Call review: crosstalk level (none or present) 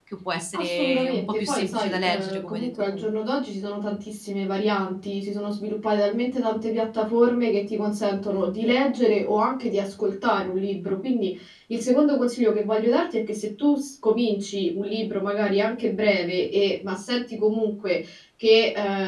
present